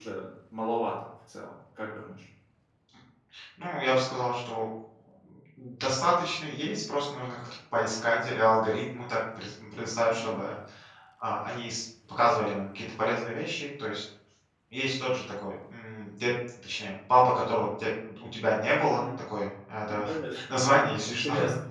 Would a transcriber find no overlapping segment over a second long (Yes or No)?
Yes